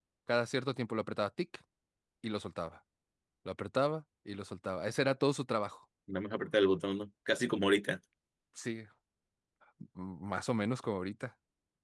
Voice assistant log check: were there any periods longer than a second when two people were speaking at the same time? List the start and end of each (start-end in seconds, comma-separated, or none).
none